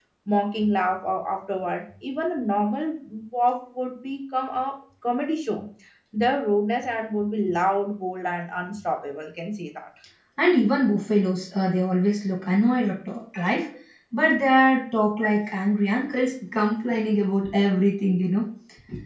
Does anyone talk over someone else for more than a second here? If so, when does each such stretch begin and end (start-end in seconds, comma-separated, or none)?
none